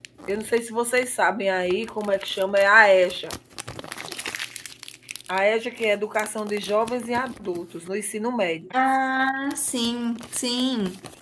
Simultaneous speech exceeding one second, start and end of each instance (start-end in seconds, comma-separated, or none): none